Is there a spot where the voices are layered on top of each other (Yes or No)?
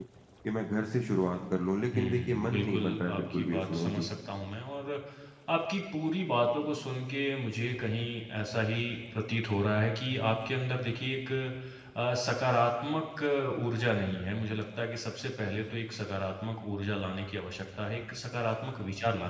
Yes